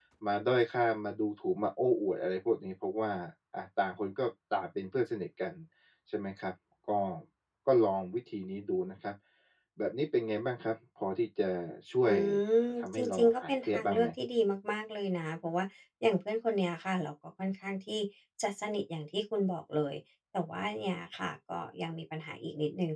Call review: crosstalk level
present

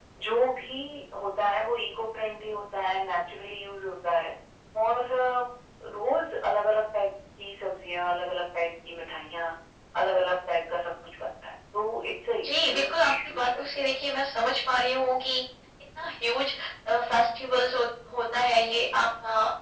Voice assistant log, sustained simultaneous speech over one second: present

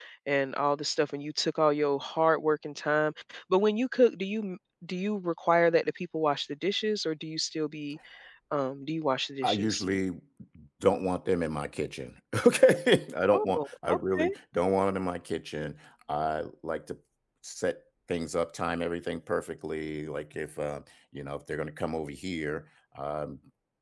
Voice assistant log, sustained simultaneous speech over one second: none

